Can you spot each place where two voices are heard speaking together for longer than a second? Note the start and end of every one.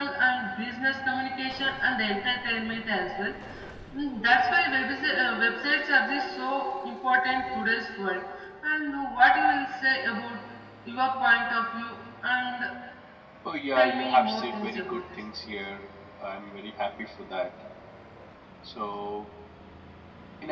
13.8-15.2

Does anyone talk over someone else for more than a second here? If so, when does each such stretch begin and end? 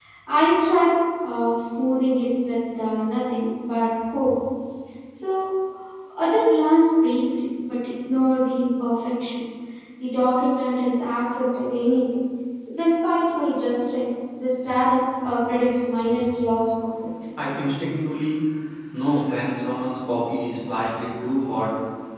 none

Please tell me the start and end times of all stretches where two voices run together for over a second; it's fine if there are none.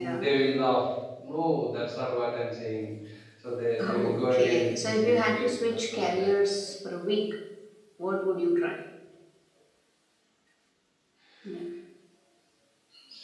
3.8-6.3

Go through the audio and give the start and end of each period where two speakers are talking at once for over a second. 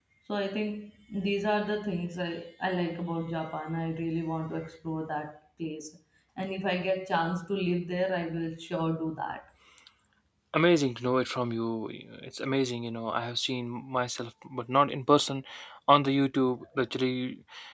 none

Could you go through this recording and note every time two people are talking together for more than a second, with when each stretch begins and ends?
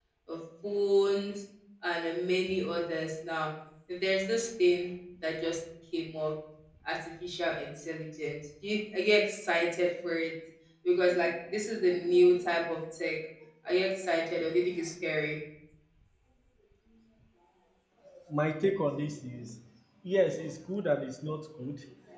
none

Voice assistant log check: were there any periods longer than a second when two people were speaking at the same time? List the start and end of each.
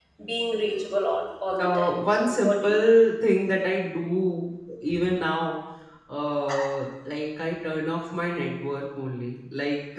1.6-3.0

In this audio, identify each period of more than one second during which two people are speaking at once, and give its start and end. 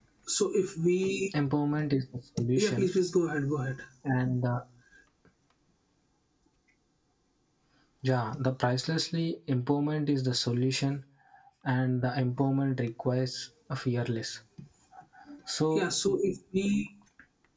none

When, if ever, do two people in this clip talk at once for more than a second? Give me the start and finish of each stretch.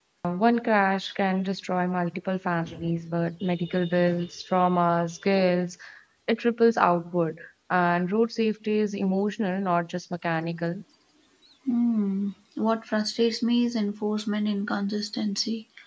none

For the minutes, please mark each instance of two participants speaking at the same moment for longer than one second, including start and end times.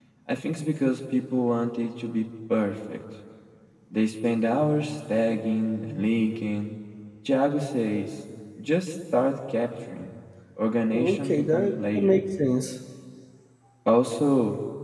10.9-12.2

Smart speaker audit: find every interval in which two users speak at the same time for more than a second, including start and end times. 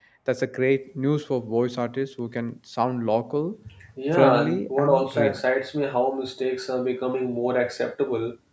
4.1-5.4

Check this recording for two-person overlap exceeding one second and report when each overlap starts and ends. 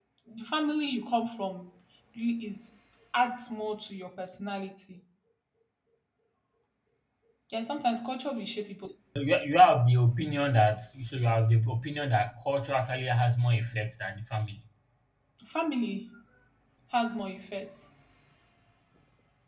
none

